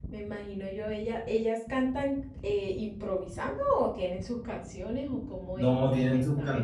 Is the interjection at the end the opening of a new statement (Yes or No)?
Yes